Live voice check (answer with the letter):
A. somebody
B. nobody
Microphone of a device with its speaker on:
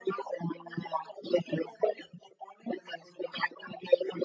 B